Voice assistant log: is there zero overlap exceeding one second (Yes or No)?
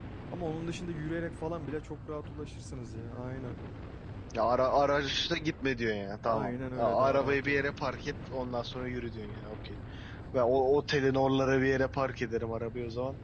No